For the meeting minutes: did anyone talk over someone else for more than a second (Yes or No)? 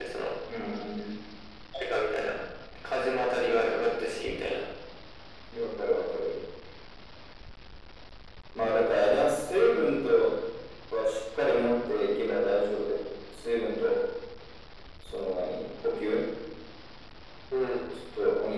No